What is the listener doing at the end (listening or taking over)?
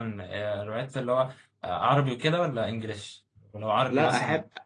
taking over